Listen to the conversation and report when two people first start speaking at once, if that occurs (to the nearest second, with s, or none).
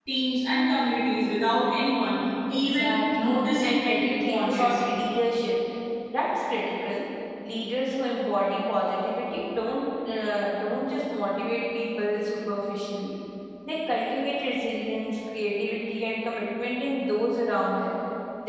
2 s